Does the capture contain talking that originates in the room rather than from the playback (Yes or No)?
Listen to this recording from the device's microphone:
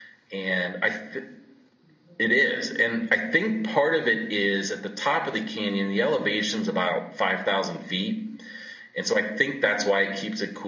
No